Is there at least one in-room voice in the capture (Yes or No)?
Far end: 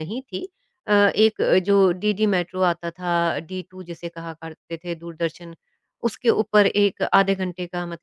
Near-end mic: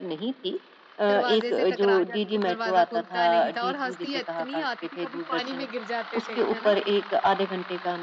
Yes